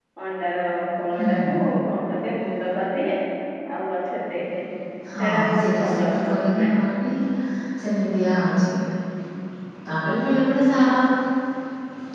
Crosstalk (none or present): present